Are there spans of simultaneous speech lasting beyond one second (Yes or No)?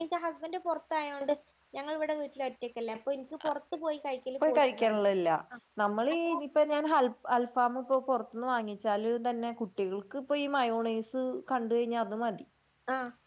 No